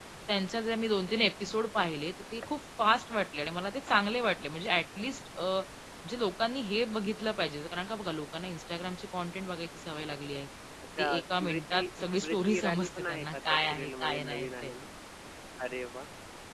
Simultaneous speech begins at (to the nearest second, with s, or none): 11 s